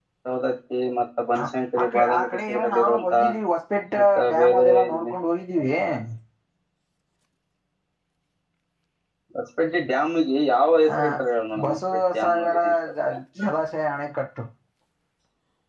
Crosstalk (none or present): present